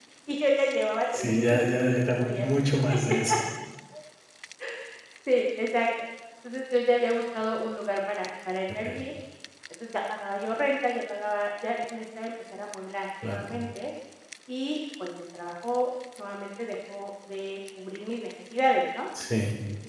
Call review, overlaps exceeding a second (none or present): present